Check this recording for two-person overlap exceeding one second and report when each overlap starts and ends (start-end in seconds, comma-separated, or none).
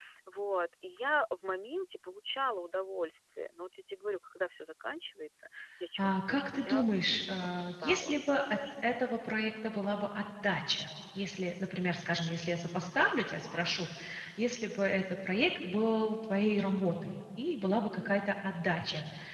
6.0-8.2